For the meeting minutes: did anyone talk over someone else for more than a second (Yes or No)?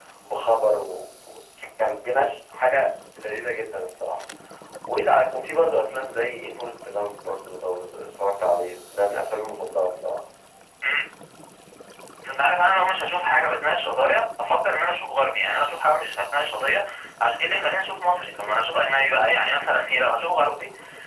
No